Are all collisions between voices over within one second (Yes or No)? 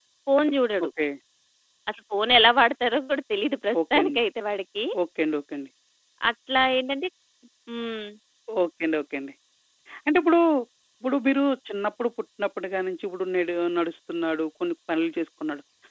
Yes